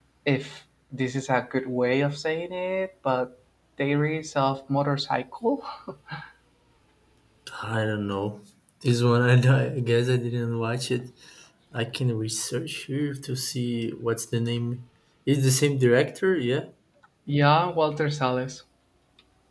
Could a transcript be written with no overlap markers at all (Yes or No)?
Yes